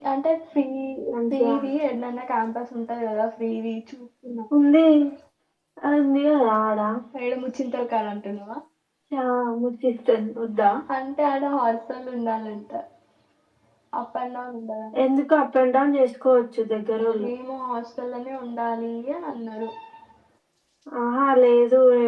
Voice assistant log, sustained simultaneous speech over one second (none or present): none